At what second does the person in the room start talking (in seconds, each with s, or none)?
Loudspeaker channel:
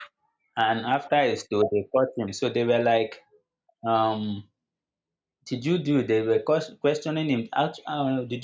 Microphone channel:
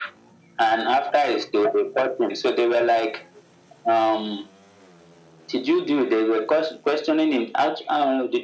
none